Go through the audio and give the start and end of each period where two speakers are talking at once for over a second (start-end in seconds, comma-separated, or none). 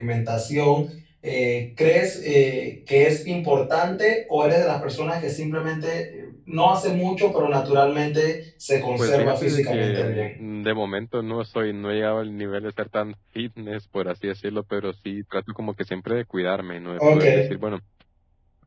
9.0-10.3